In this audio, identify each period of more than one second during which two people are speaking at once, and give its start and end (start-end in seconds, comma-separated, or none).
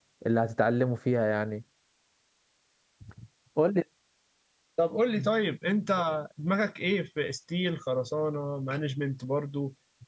none